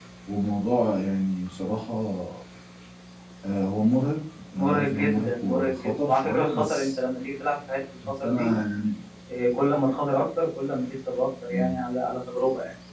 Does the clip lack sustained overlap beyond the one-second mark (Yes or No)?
No